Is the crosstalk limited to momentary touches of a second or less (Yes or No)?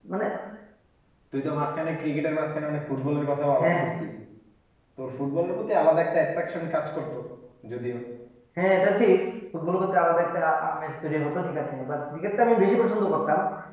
Yes